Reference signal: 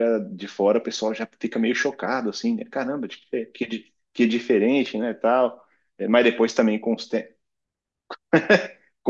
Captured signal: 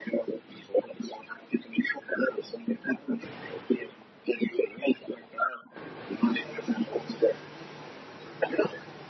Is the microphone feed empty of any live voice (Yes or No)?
Yes